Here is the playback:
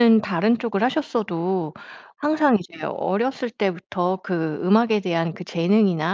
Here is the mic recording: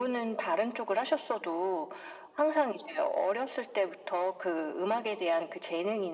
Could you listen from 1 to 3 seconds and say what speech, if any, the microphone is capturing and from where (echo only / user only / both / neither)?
echo only